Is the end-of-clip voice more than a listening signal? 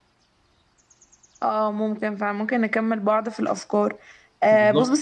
No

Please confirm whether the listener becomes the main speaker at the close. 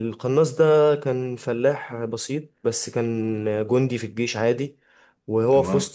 No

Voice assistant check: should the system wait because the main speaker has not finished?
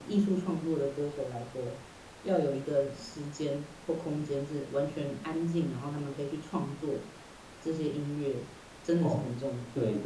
No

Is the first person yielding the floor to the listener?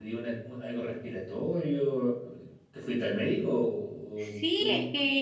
Yes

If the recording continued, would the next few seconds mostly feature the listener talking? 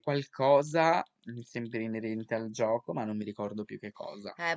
Yes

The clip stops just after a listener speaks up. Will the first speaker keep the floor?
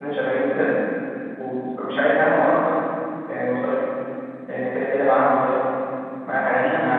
No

